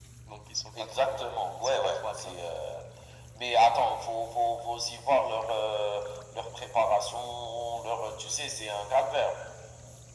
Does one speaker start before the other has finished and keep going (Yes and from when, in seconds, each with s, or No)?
Yes, from 0.8 s